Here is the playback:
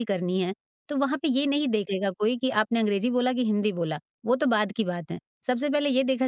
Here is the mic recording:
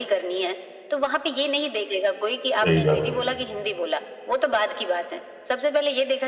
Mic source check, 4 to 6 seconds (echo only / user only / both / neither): echo only